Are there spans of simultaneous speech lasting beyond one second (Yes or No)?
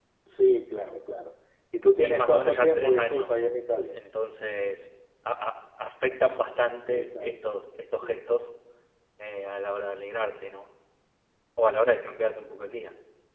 Yes